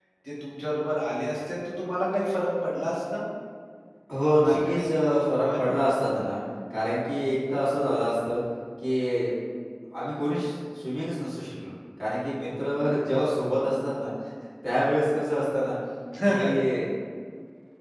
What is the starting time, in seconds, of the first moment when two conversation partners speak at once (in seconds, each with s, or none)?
4.5 s